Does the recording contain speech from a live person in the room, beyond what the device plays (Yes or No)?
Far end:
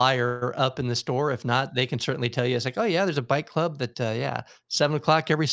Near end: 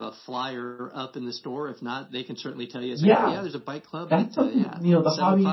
Yes